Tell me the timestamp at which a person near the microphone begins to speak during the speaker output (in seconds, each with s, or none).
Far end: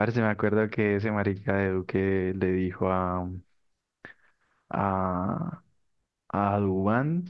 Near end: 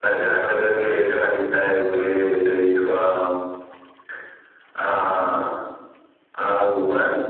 none